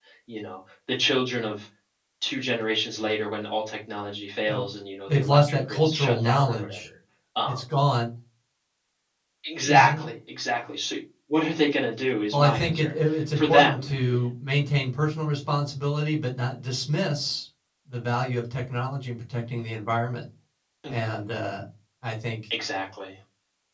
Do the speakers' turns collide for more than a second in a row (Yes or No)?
Yes